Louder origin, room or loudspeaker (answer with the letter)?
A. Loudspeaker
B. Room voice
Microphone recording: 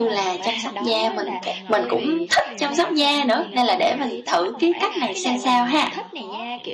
B